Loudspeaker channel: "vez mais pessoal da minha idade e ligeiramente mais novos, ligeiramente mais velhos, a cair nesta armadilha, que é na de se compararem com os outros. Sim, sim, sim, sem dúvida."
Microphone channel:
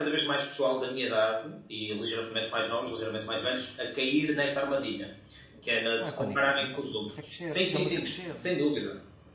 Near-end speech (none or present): present